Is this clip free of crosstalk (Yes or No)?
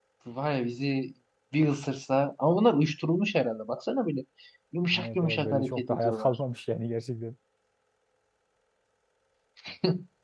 No